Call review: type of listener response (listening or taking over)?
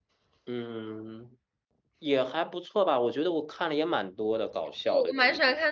taking over